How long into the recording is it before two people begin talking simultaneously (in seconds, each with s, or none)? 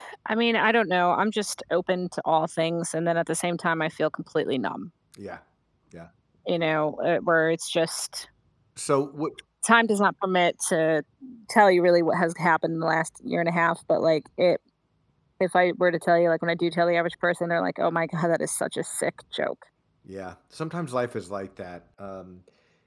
none